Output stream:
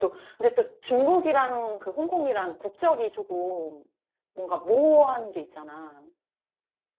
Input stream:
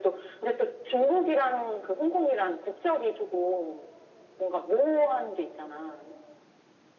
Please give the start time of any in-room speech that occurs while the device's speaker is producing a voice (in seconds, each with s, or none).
none